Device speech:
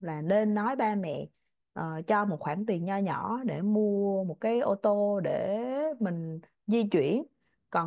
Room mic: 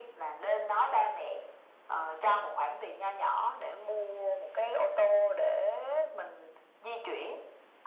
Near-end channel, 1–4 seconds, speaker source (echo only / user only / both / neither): echo only